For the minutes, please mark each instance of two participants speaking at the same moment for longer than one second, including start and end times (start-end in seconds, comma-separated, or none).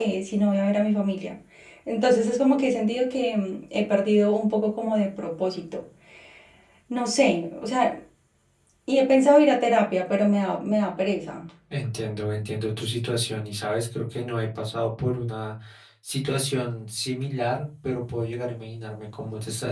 none